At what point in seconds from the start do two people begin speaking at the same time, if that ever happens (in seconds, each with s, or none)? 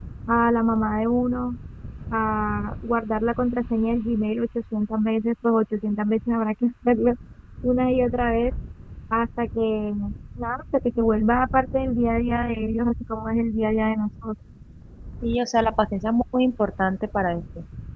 none